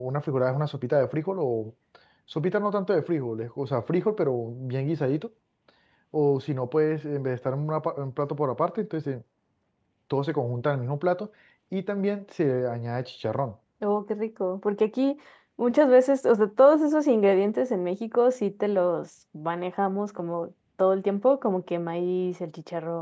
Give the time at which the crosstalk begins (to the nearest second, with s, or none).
none